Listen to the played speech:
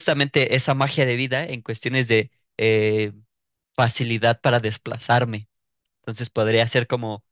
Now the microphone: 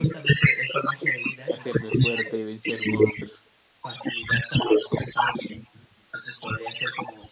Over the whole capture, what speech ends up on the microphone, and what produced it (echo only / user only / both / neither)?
both